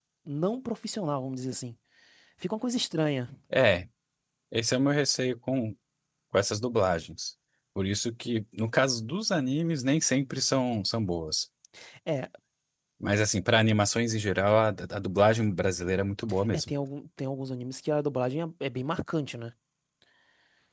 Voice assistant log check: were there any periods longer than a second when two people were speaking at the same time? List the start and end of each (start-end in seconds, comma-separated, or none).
none